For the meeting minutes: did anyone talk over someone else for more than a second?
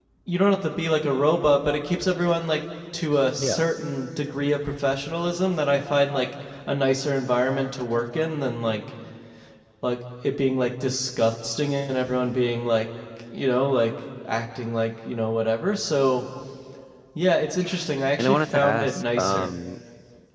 Yes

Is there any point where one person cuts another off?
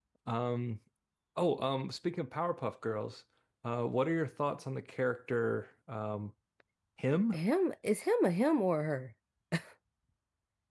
No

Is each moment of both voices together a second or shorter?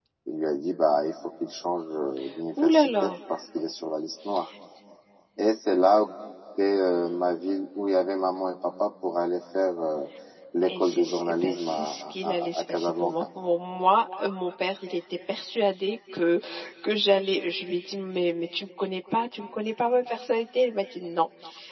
No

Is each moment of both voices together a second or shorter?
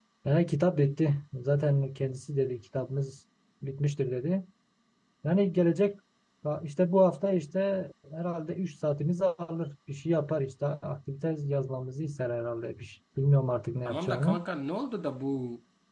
Yes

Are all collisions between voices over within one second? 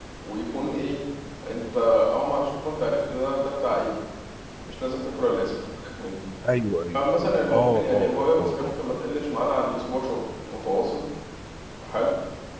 No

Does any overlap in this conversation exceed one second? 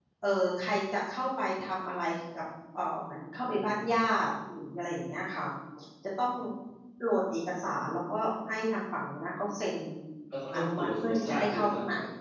Yes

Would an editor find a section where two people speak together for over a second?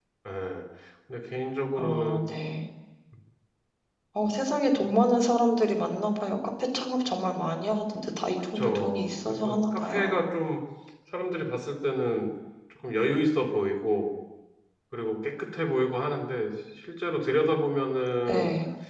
Yes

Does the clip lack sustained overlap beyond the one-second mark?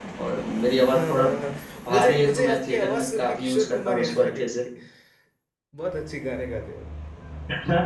No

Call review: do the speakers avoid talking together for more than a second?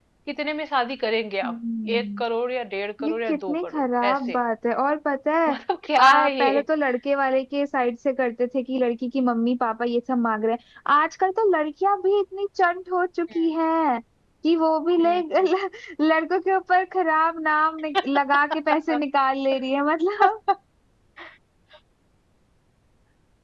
No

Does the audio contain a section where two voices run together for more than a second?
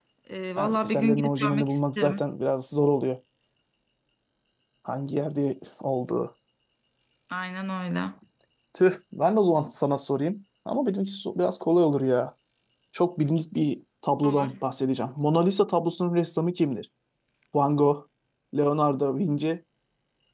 Yes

